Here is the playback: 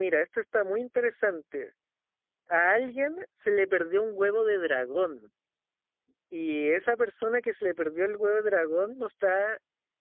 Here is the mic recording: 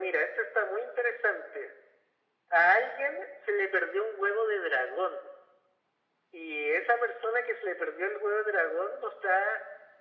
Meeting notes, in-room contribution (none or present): none